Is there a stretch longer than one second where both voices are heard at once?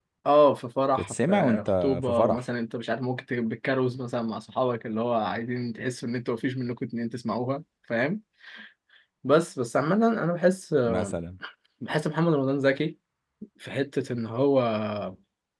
Yes, from 1.0 s

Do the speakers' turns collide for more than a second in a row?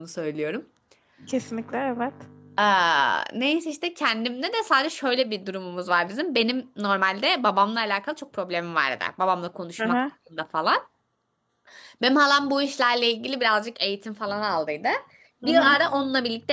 No

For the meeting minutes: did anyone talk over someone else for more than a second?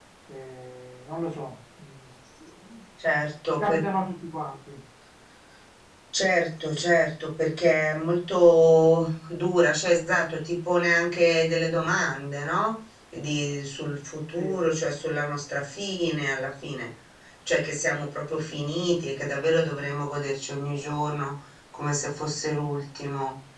No

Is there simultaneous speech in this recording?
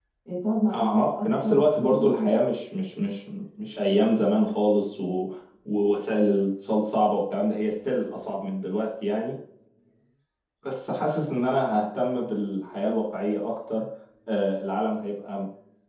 Yes, from 0.7 s

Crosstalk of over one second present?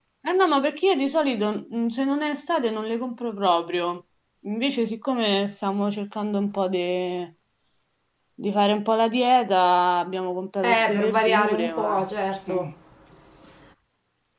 Yes, from 10.6 s

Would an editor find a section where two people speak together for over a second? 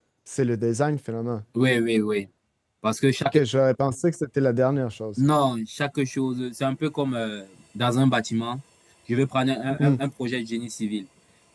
No

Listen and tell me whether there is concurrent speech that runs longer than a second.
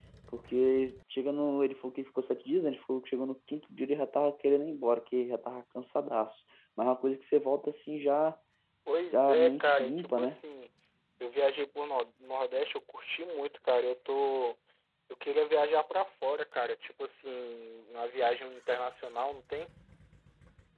Yes, from 9.1 s

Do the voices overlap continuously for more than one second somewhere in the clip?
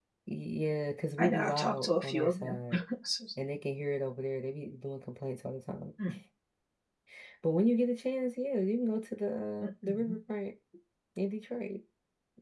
Yes, from 1.2 s

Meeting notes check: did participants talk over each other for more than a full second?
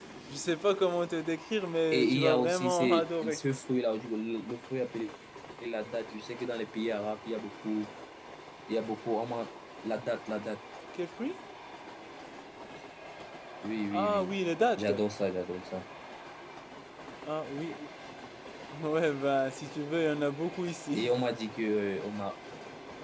Yes, from 1.9 s

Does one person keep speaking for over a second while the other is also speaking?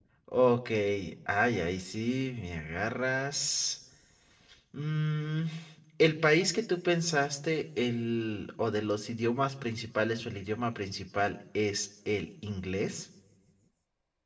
No

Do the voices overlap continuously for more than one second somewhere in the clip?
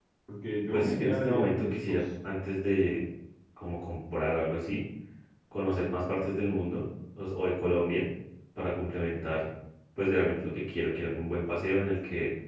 Yes, from 0.7 s

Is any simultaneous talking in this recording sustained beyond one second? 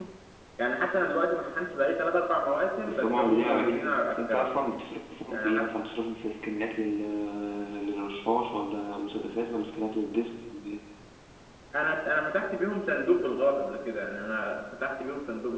Yes, from 2.9 s

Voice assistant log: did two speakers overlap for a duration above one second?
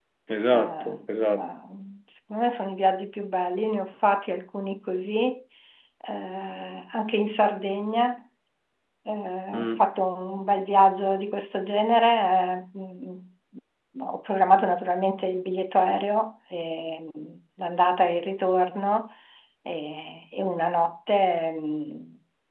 No

